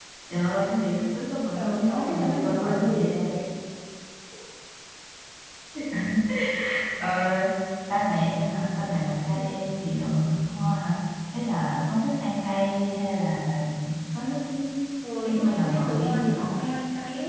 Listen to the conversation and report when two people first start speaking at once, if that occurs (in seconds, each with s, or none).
1.6 s